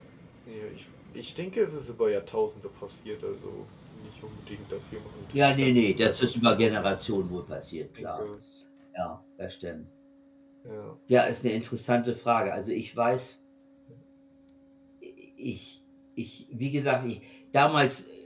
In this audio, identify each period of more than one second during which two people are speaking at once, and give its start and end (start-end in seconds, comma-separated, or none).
5.3-6.8